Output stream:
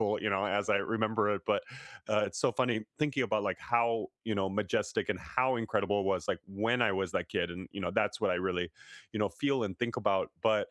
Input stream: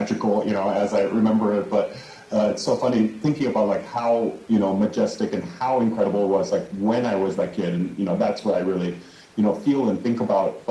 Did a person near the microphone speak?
No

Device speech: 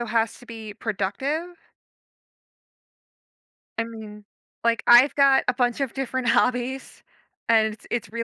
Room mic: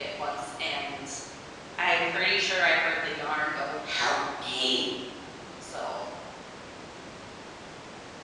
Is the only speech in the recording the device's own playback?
No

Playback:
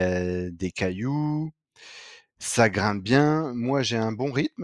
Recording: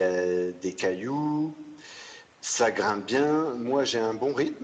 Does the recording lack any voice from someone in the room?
Yes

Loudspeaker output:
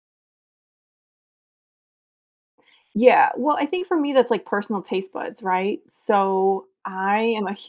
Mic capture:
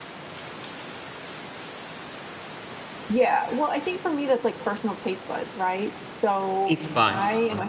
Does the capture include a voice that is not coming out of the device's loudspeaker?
Yes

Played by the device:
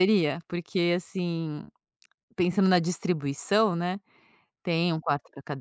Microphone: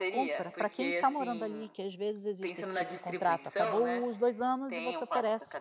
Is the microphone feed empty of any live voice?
No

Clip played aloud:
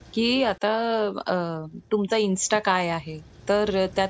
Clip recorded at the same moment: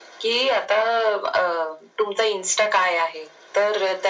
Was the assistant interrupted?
No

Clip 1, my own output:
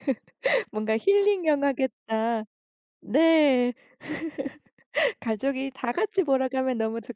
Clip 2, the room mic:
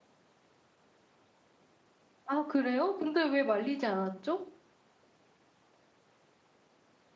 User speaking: Yes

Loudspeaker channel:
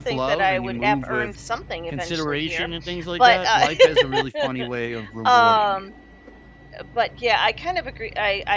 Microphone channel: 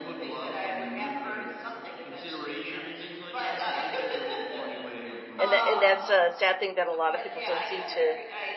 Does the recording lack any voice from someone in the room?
No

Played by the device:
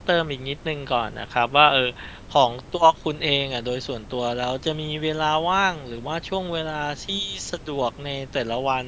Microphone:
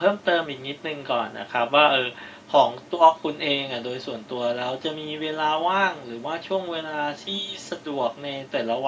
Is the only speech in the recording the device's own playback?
Yes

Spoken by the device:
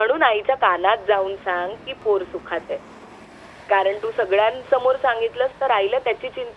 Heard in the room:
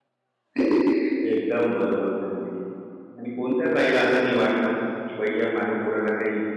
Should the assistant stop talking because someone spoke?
Yes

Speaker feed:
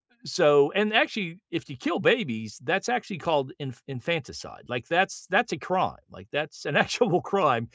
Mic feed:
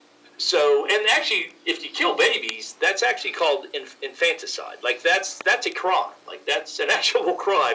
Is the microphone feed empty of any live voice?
Yes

